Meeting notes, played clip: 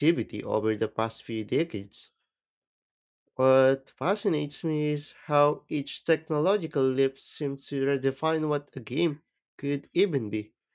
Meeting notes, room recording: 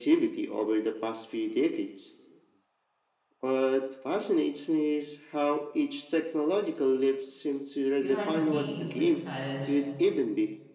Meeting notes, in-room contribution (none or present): present